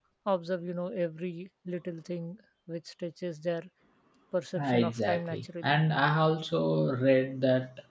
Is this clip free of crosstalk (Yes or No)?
No